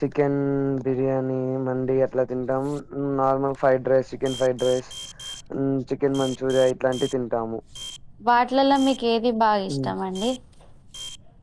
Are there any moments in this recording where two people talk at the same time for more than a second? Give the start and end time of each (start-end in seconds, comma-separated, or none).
none